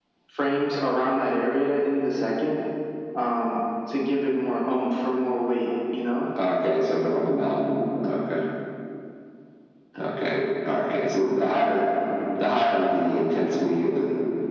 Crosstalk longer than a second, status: none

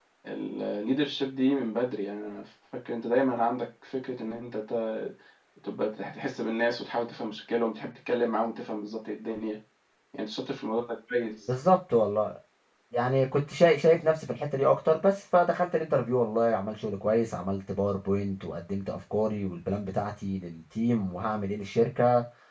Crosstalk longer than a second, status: none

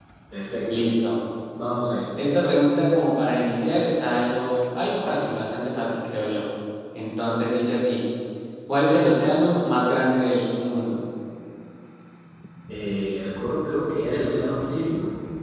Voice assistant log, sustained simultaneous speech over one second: none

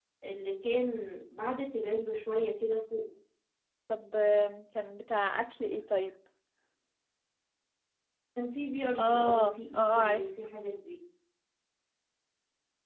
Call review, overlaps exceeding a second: present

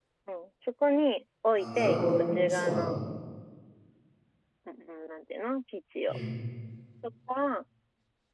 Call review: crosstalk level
present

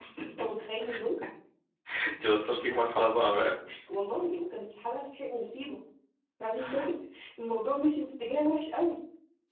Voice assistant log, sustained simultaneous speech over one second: none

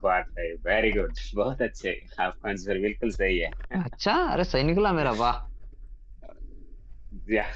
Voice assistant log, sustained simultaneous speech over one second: none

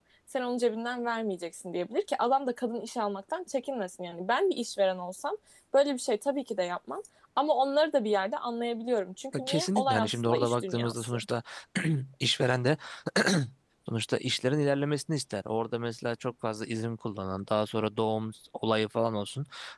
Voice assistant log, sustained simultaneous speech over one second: present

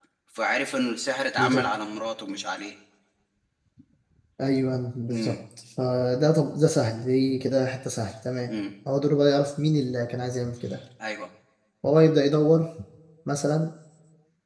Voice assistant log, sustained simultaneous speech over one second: none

